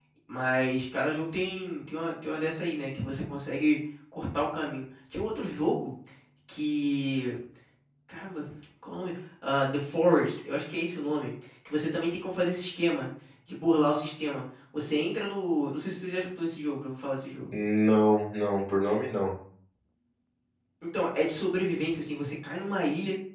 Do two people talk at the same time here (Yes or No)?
No